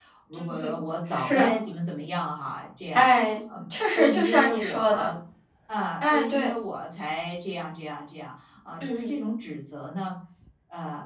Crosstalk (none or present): present